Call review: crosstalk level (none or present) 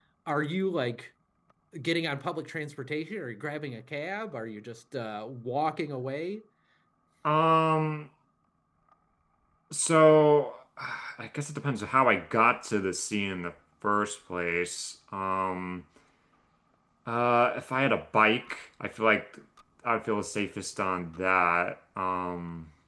none